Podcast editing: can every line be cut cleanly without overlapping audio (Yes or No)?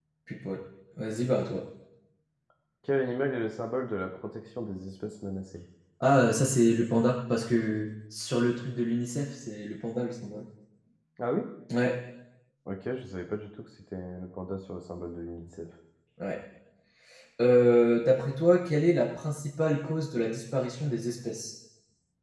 Yes